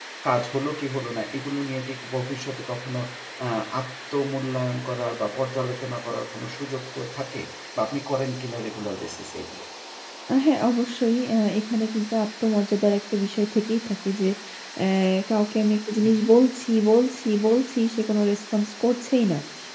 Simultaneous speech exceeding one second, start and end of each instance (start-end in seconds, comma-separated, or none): none